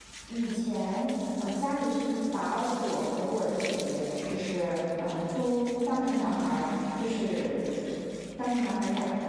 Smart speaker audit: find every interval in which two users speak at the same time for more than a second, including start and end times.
none

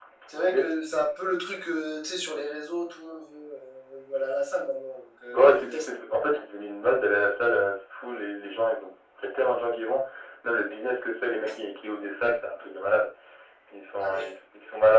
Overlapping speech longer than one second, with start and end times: none

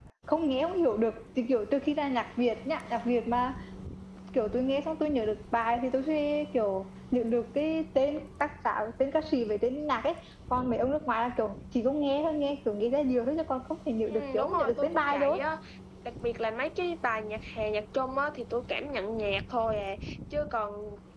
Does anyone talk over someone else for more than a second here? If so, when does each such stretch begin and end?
14.1-15.4

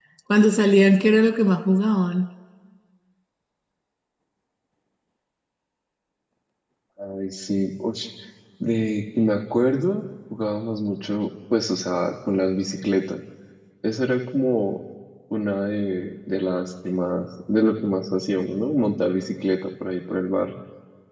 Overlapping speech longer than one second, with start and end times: none

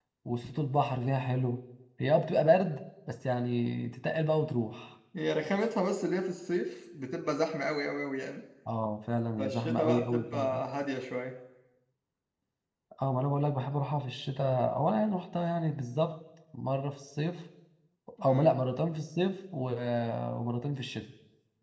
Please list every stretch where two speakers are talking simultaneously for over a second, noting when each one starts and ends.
9.4-10.6

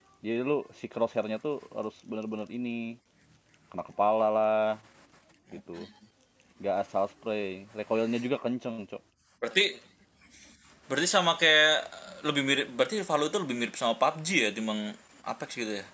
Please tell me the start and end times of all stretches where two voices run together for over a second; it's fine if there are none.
none

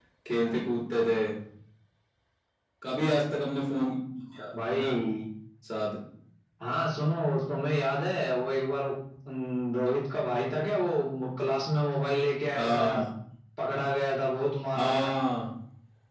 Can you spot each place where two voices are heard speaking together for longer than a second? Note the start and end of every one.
none

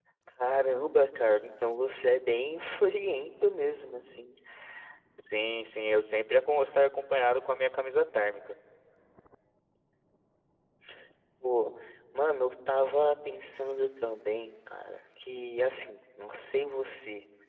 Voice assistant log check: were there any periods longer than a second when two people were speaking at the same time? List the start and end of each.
none

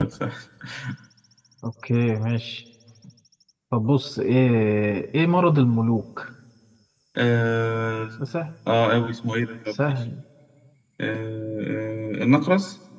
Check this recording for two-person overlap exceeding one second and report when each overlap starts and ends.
none

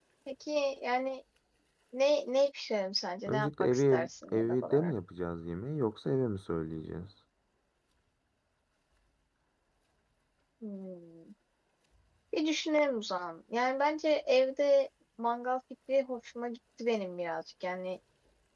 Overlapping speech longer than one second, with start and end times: 3.3-4.9

